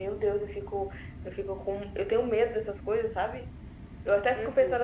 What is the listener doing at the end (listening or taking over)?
listening